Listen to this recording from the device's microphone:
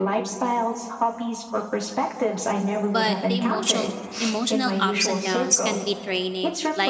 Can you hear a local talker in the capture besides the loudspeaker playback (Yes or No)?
Yes